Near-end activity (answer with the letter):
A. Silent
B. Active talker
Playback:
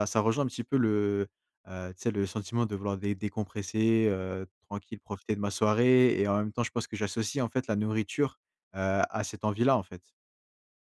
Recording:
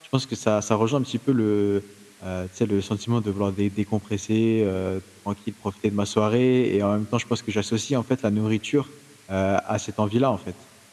A